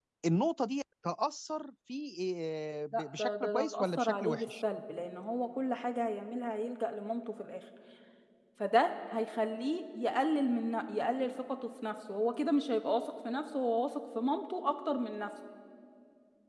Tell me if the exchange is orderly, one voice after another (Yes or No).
No